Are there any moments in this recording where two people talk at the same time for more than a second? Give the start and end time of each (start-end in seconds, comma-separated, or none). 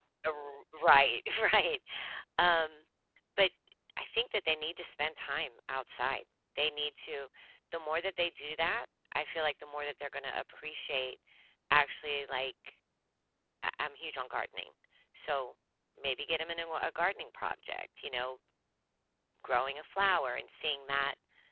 none